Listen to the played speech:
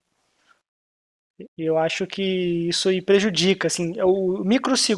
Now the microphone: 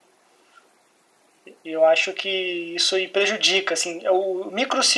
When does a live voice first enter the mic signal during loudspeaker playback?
none

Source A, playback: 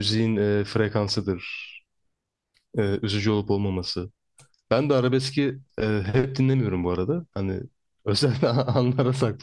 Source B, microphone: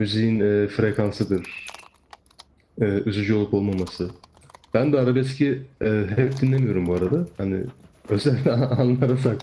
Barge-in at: none

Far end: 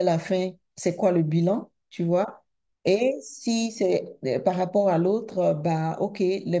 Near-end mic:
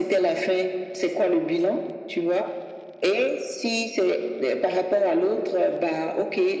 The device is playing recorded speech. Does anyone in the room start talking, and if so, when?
none

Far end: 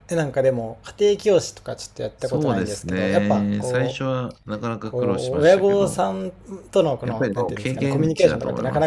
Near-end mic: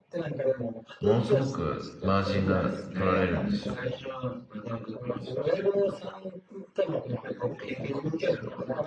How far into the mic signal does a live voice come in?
1.0 s

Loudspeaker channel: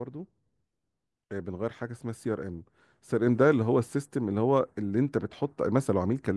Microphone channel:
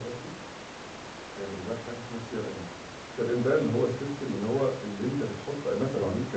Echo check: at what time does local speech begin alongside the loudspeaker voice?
none

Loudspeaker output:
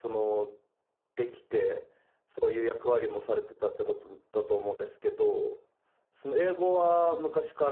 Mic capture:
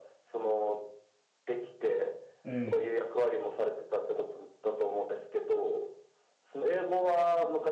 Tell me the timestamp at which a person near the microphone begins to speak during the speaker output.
2.4 s

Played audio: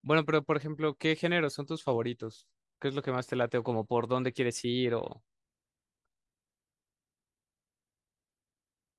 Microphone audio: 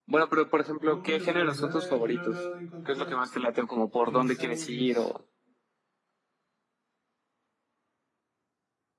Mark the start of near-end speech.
0.8 s

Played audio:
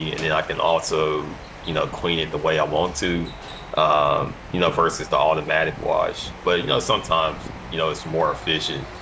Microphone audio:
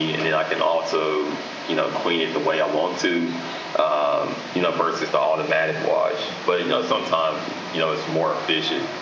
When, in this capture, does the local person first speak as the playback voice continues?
none

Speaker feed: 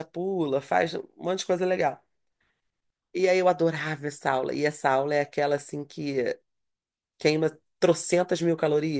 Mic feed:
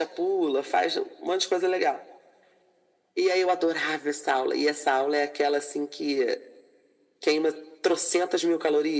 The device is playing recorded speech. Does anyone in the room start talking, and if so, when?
none

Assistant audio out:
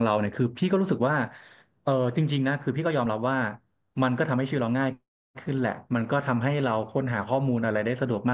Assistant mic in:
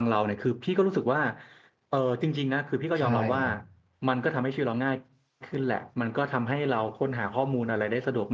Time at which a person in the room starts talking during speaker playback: 3.0 s

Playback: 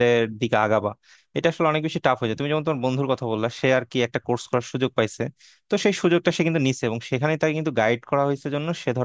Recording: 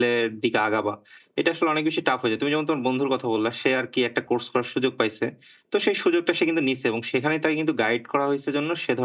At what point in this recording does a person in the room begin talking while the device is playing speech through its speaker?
none

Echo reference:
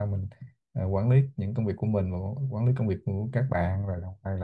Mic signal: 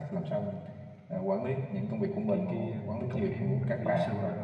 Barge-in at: 2.3 s

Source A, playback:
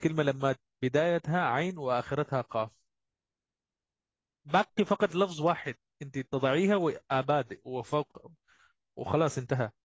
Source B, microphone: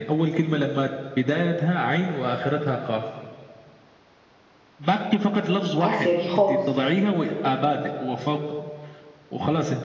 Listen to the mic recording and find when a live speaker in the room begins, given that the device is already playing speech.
5.8 s

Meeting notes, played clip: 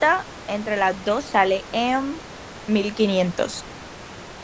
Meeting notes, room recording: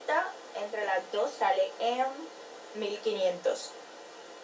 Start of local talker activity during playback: none

